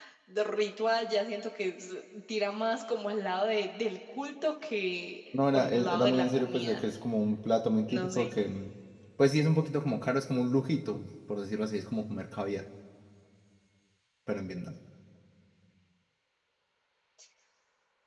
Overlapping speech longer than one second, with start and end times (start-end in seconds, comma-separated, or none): 5.3-6.8